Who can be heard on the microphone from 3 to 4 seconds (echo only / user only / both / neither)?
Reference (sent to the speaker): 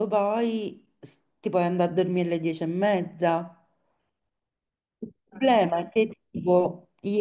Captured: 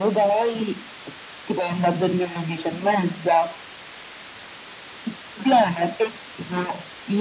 echo only